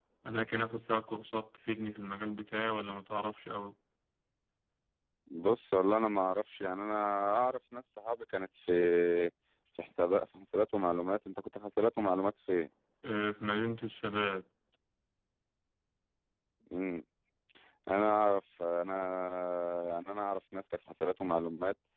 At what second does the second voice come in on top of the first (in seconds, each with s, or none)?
none